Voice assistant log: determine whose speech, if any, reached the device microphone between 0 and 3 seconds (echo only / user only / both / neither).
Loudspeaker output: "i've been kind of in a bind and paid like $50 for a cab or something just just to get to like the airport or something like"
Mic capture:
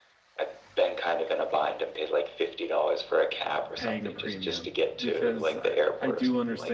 echo only